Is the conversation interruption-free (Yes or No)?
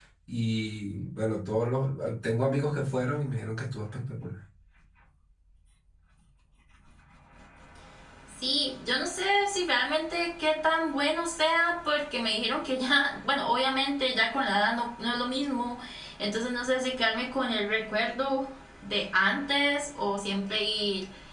Yes